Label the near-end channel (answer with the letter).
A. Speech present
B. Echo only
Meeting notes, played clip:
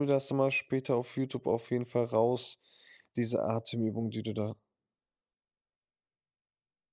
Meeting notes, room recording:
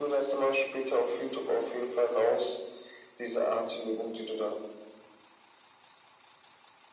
B